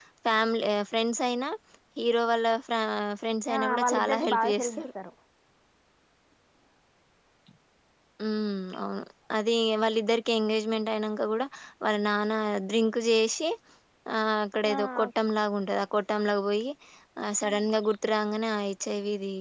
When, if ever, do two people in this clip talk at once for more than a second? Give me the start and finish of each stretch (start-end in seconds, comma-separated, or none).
3.5-4.8